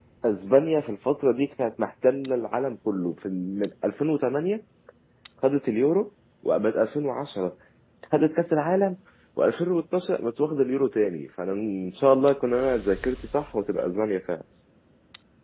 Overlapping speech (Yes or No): No